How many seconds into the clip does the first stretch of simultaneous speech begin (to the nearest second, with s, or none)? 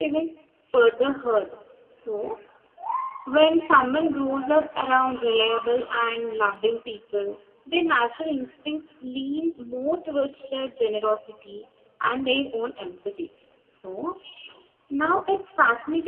none